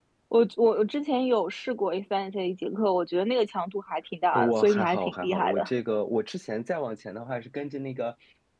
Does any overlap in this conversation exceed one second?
Yes, from 4.3 s

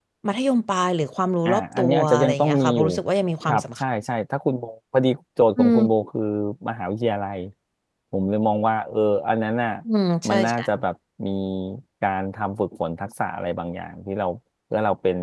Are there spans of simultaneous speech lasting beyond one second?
Yes, from 1.4 s

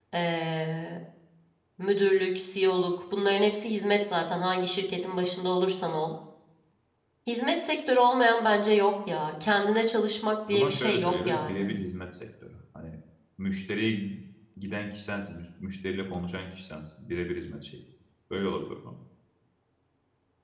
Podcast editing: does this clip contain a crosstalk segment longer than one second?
Yes, from 10.5 s

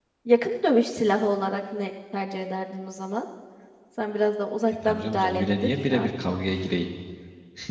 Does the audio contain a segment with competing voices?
Yes, from 4.8 s

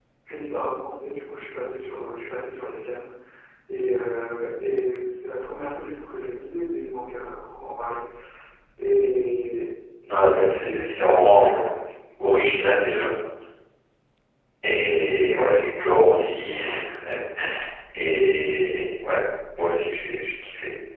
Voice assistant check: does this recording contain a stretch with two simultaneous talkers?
Yes, from 10.1 s

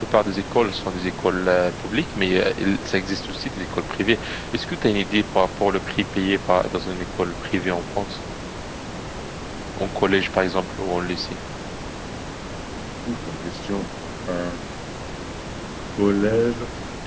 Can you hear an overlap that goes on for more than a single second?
No

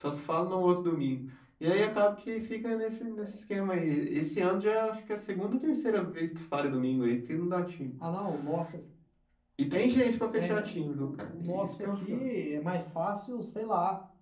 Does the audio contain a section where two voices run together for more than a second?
Yes, from 10.4 s

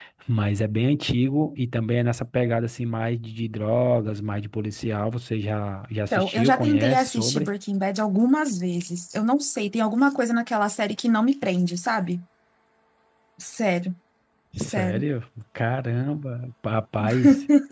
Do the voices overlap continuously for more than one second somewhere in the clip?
Yes, from 6.1 s

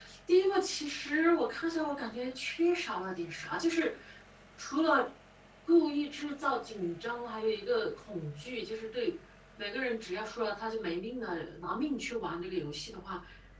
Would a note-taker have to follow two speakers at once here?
No

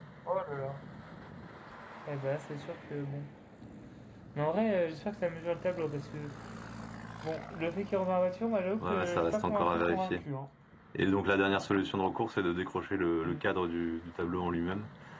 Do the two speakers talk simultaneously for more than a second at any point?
Yes, from 8.8 s

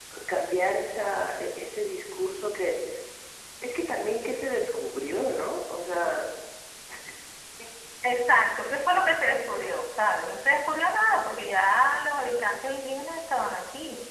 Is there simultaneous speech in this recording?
No

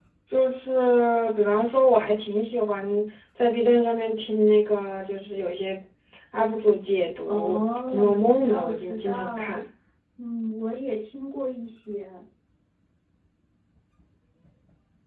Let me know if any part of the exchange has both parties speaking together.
Yes, from 7.2 s

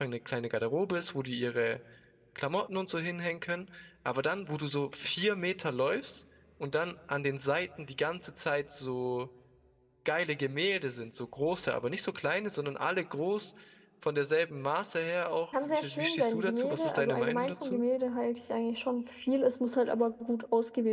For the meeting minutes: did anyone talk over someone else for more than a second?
Yes, from 15.5 s

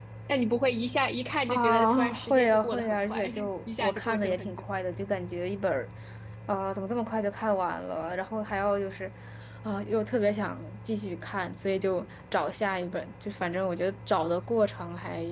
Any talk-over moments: Yes, from 1.5 s

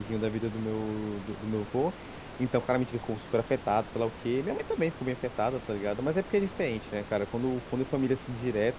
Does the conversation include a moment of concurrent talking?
No

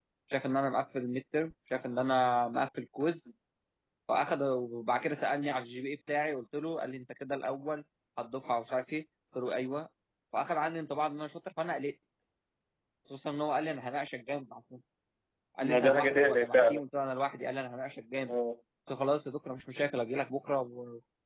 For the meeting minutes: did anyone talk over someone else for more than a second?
Yes, from 15.6 s

